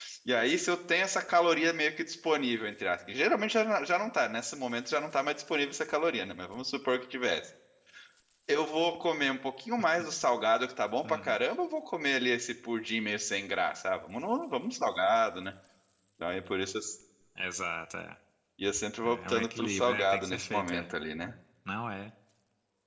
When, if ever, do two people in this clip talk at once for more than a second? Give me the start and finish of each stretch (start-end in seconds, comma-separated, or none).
19.0-20.9